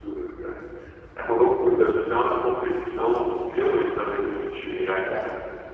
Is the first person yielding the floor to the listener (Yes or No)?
Yes